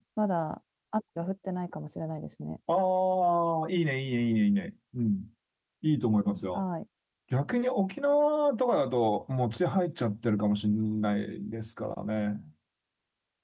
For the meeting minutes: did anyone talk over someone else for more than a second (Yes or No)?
No